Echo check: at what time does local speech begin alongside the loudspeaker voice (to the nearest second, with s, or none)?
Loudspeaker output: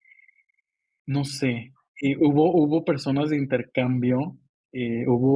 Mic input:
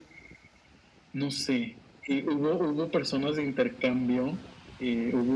none